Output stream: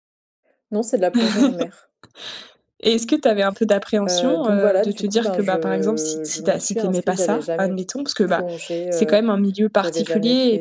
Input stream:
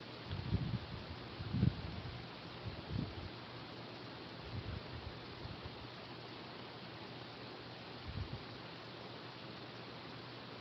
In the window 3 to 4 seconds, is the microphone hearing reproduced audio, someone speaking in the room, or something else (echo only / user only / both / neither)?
neither